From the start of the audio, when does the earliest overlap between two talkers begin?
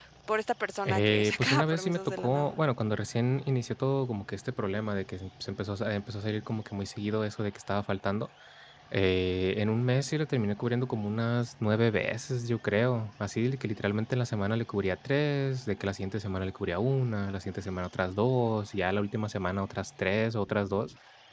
0.8 s

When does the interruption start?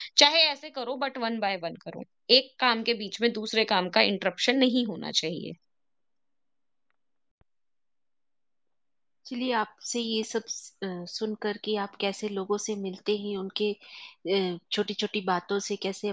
none

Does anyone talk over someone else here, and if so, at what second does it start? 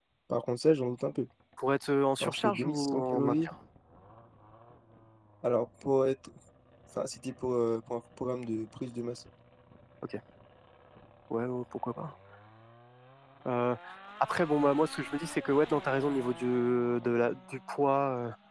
2.2 s

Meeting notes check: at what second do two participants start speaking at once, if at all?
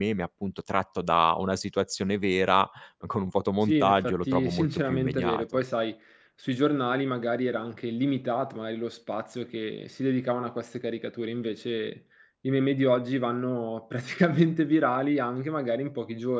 3.7 s

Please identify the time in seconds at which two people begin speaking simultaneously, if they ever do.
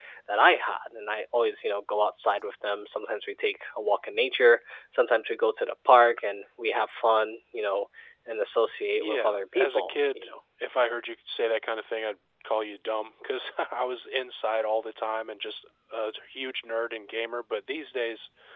9.0 s

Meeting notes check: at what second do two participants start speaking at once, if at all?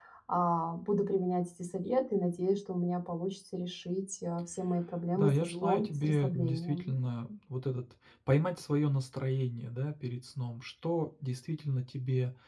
5.2 s

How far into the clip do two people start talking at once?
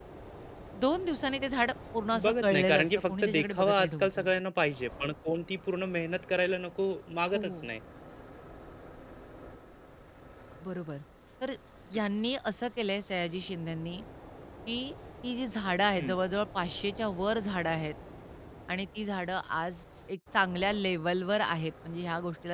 2.2 s

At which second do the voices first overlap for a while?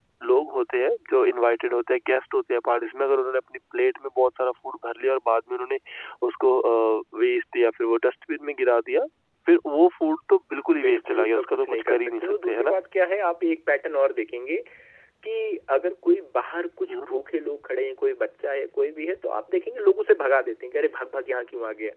10.8 s

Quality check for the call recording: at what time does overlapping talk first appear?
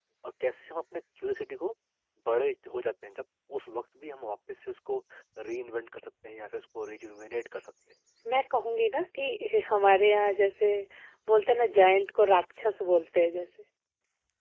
none

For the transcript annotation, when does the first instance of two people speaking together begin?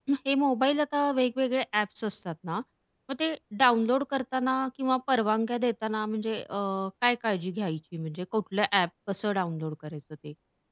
none

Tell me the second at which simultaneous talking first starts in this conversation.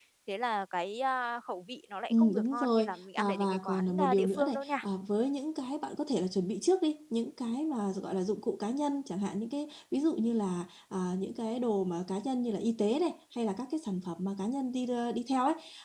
2.1 s

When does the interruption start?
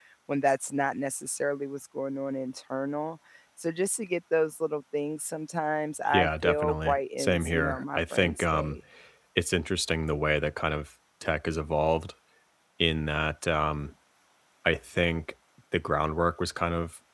6.1 s

